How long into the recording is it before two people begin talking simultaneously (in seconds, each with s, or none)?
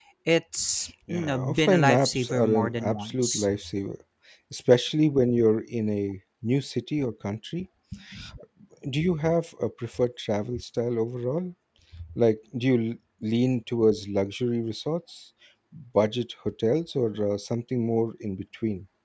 1.1 s